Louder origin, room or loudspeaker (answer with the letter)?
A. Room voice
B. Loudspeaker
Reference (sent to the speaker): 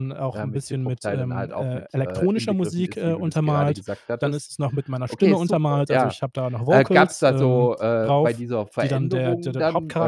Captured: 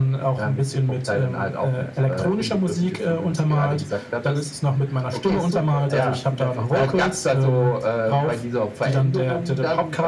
B